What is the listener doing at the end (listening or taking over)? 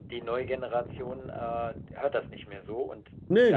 listening